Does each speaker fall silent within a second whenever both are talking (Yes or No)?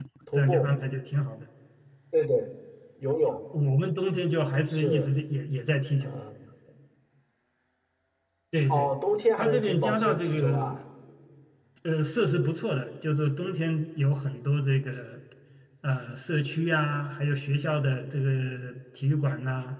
No